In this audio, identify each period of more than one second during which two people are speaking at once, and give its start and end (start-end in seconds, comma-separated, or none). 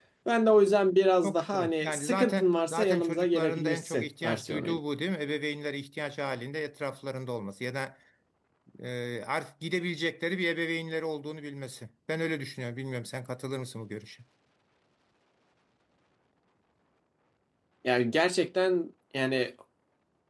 1.2-4.8